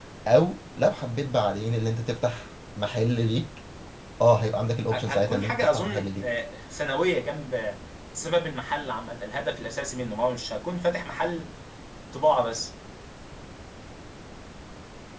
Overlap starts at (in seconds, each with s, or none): 4.9 s